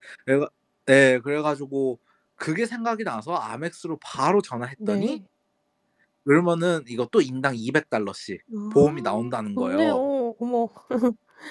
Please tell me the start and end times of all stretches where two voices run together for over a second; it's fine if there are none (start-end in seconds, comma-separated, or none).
8.7-10.0